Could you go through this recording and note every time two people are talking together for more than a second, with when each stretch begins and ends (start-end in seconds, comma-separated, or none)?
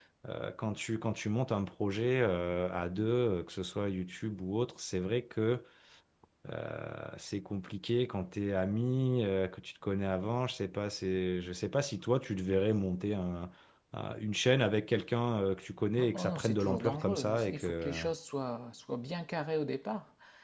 16.1-17.9